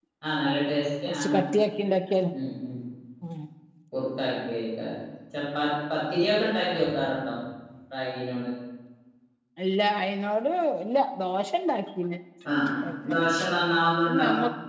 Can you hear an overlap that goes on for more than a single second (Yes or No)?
No